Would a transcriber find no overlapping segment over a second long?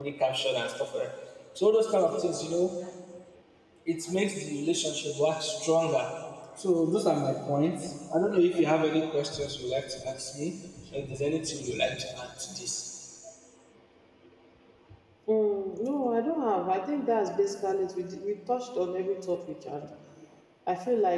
Yes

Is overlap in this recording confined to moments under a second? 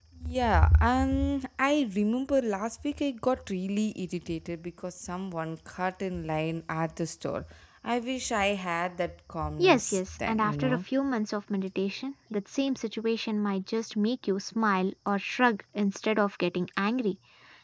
No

